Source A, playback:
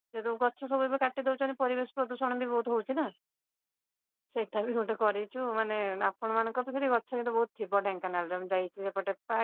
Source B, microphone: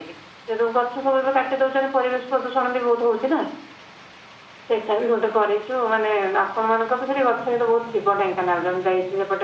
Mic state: echo only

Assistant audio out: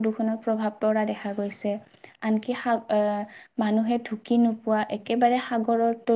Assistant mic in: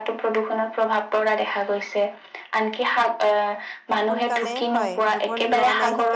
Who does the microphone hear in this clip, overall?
both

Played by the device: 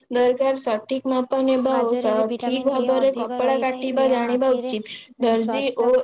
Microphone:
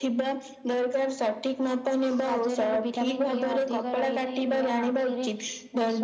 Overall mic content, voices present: echo only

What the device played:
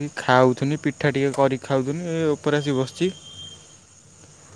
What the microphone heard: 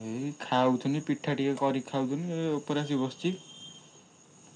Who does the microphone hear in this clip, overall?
echo only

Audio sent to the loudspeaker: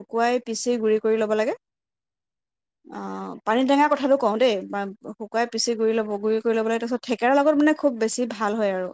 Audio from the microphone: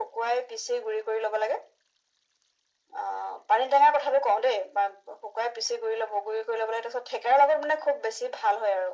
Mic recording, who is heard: echo only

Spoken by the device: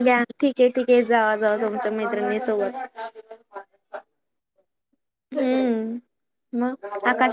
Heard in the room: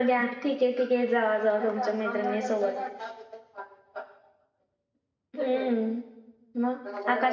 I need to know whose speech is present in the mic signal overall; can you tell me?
echo only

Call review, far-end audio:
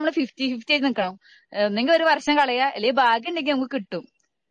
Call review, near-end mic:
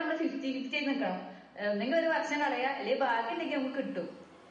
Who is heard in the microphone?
echo only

